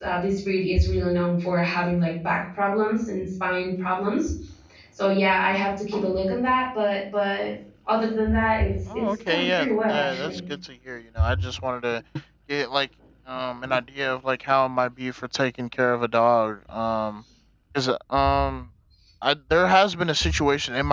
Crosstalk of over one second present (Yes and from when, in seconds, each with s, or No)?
Yes, from 8.9 s